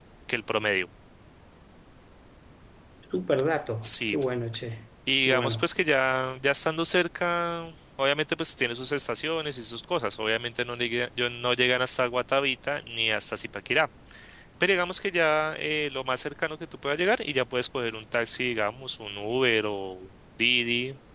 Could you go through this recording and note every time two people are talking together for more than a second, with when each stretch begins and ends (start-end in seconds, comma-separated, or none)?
none